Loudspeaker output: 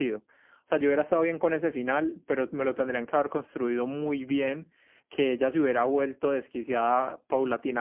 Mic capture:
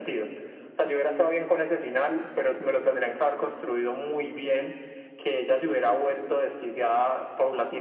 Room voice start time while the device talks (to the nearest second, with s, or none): none